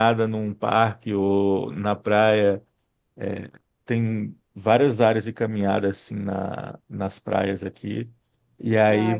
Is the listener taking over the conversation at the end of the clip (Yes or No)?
No